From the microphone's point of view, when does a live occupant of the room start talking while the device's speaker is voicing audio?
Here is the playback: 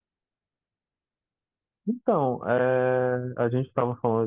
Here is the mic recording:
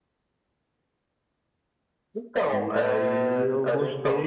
2.4 s

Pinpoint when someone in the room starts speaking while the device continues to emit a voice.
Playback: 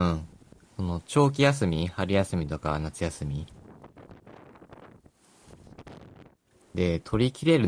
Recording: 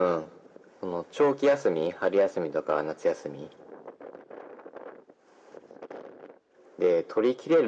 none

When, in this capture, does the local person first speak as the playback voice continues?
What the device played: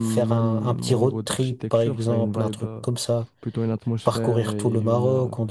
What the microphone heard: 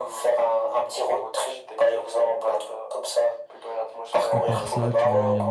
4.3 s

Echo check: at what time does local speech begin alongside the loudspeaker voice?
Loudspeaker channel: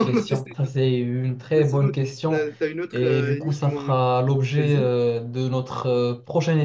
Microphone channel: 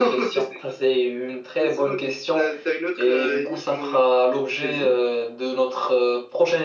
none

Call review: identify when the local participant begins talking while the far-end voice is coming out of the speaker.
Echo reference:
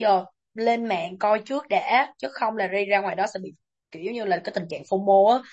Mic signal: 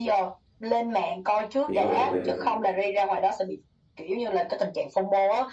1.6 s

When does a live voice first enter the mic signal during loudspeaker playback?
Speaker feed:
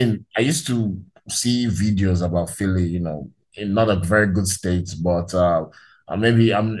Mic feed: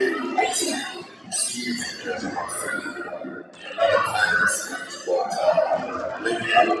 none

